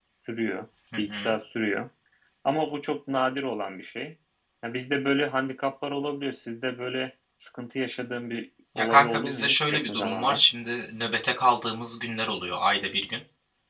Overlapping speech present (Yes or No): Yes